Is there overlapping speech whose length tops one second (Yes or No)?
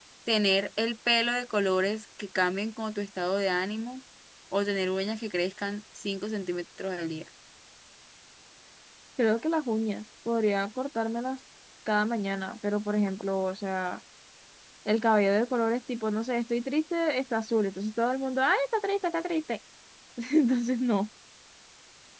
No